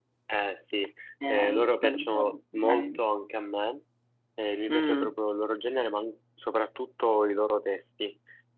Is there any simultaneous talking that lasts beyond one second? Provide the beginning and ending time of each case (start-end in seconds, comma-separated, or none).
1.3-3.0